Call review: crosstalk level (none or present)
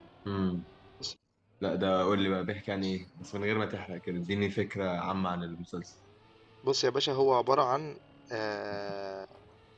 none